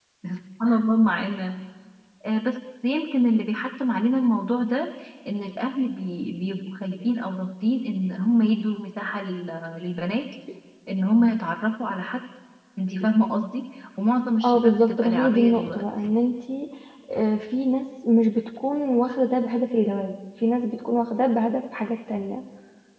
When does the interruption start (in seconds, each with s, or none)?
14.4 s